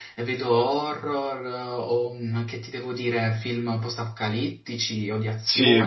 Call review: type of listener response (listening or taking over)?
taking over